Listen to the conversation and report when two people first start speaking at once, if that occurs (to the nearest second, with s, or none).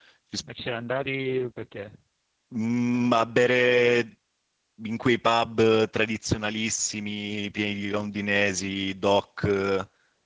none